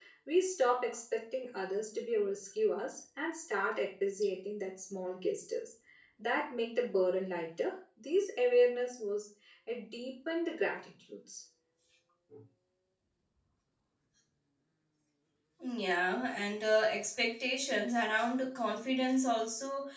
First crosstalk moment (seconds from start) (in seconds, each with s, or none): none